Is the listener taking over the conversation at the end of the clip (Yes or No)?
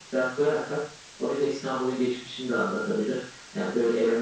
No